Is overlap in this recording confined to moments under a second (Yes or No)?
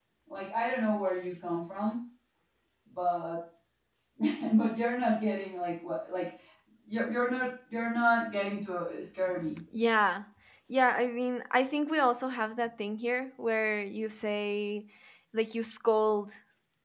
Yes